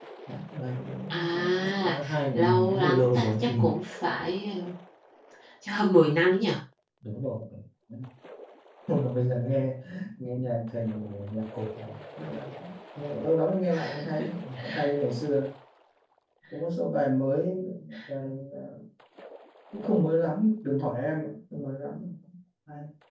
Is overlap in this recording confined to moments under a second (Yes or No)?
No